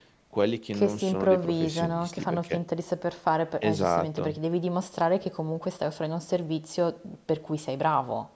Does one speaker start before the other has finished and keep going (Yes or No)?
Yes